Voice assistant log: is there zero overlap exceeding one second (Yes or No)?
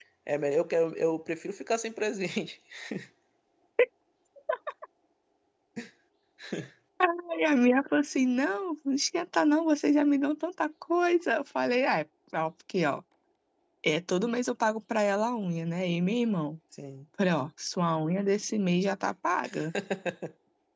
Yes